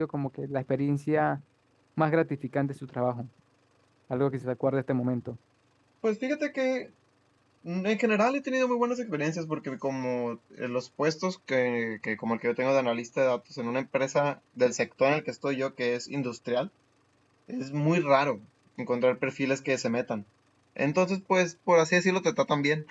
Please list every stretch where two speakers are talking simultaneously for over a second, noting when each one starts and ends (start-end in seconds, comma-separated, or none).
none